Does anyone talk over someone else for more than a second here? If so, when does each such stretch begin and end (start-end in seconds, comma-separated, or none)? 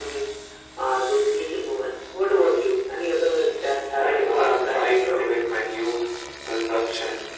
4.0-5.2